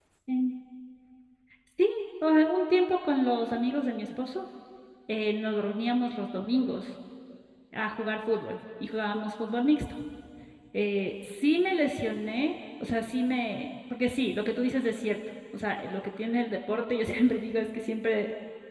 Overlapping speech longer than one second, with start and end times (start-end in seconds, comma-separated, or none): none